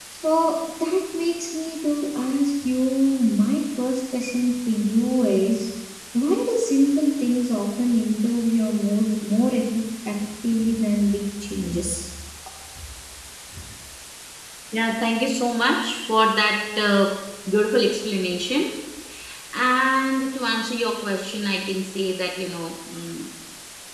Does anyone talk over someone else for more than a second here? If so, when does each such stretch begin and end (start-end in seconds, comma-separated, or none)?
none